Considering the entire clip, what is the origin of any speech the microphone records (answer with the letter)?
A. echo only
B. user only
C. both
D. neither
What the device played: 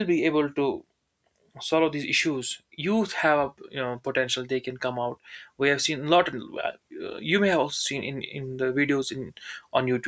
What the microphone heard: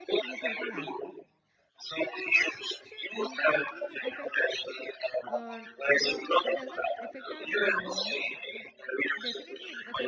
C